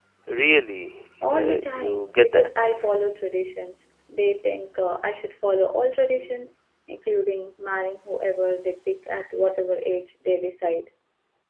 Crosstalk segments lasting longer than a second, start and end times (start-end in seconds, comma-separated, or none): 1.3-2.7